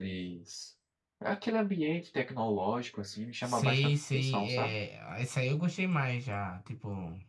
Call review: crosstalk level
present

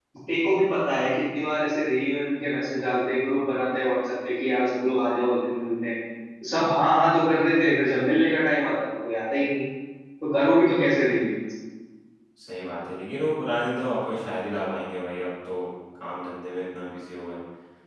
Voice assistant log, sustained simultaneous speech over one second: none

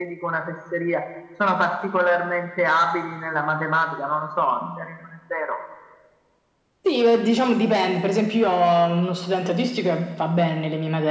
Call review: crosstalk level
none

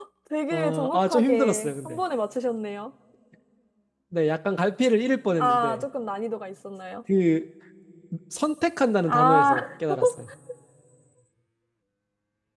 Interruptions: present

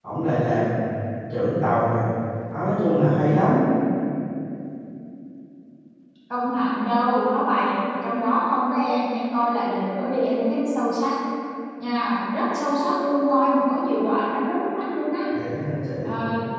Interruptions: none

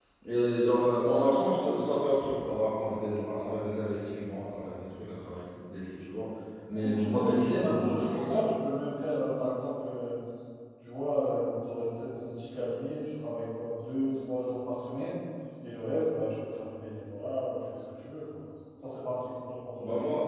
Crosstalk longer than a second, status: present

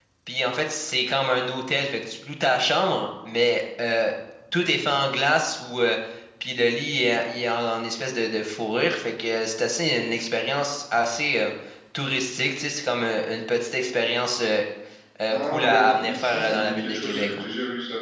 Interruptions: present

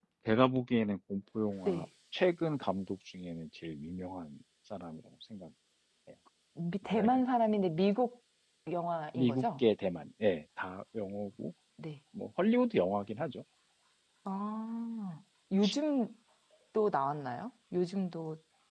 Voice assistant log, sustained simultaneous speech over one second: none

